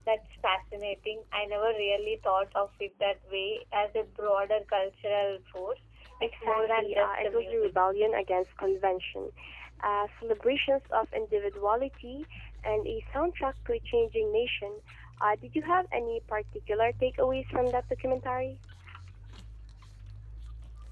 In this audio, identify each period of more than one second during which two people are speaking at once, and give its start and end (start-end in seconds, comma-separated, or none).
6.2-7.7